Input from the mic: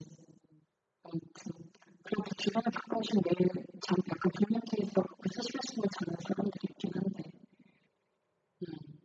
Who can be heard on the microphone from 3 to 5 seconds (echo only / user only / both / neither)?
echo only